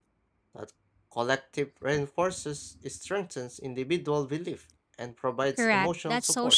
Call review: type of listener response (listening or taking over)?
taking over